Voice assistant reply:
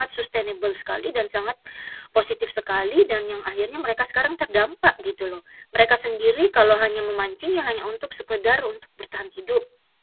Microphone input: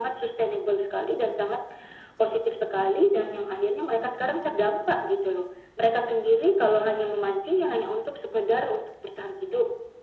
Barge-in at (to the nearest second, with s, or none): none